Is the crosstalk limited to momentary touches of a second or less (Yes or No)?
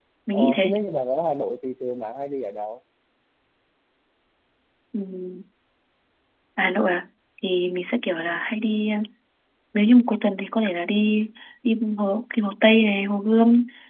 Yes